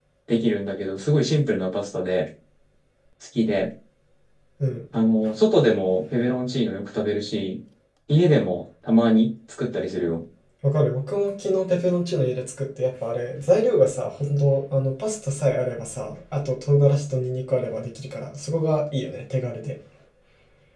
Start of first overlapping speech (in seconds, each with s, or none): none